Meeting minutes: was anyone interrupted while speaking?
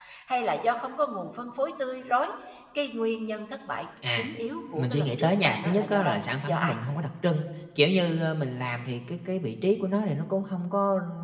Yes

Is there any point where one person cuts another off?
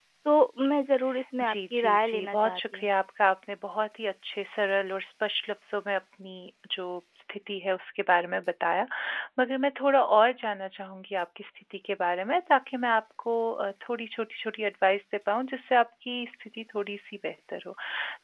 Yes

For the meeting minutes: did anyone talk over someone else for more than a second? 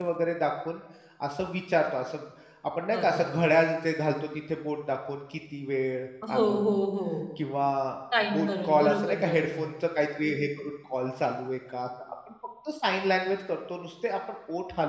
Yes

